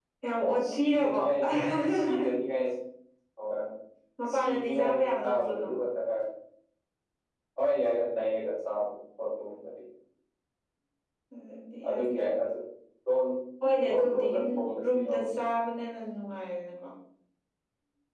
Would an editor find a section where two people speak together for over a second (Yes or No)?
Yes